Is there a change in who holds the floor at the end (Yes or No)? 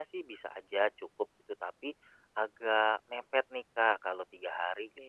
No